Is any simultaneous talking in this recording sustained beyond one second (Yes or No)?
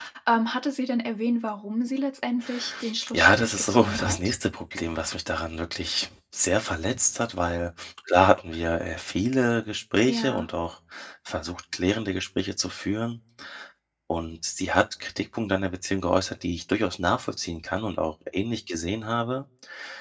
Yes